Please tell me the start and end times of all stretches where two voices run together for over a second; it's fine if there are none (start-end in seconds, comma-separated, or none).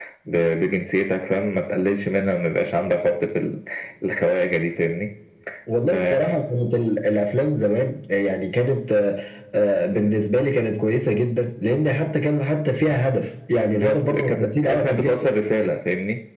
13.7-15.3